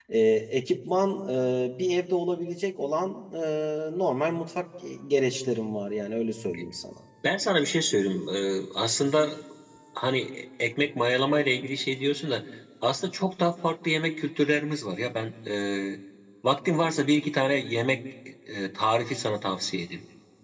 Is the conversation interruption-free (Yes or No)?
Yes